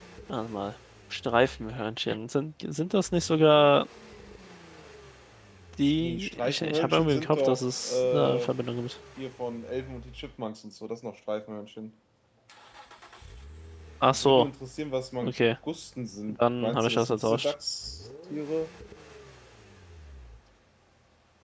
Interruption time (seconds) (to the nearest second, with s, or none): 6 s